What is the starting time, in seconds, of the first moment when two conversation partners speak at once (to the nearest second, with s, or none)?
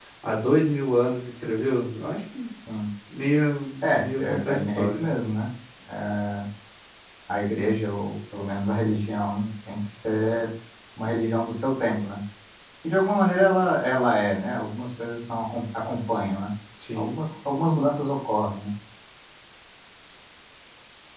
4 s